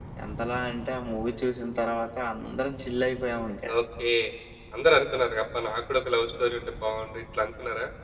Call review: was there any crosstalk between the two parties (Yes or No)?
No